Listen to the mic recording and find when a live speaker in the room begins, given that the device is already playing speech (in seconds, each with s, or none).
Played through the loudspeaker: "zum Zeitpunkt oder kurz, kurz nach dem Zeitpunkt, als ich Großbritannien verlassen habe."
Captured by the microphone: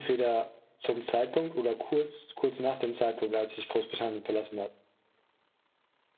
none